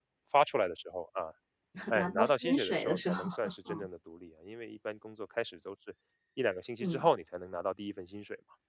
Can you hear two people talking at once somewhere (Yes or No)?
Yes